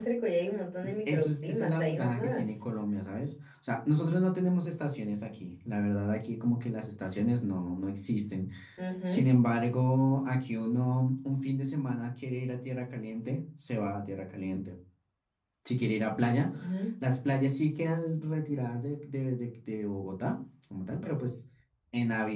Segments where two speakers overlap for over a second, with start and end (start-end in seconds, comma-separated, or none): 0.8-2.6